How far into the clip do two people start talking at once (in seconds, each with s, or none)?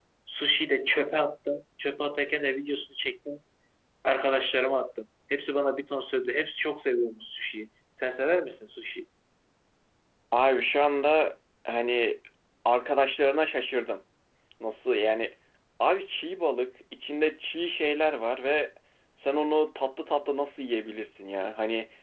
none